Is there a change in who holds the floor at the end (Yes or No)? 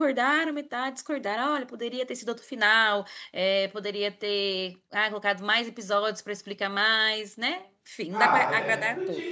Yes